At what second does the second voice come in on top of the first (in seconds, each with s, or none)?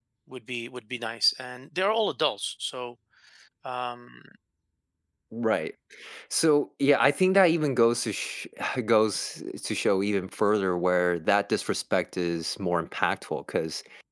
none